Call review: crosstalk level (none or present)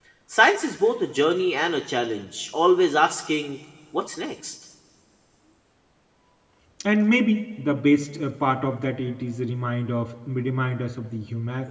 none